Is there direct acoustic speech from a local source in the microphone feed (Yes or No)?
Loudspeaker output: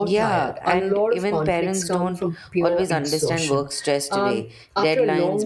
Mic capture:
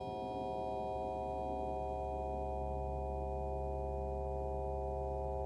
No